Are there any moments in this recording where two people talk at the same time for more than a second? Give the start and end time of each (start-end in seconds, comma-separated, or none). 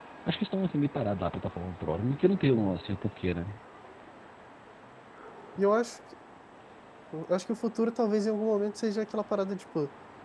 none